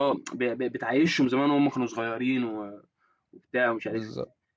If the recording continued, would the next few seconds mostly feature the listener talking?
No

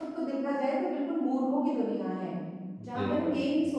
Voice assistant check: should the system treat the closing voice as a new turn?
No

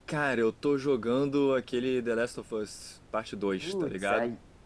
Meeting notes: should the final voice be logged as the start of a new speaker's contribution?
Yes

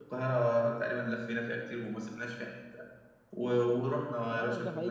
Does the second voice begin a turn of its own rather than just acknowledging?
Yes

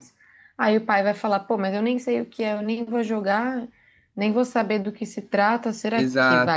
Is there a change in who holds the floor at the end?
Yes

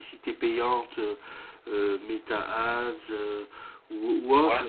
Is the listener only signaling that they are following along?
No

